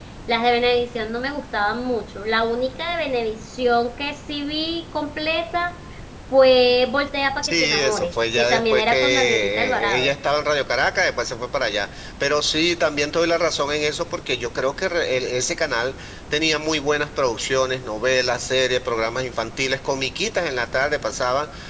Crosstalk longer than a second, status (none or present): present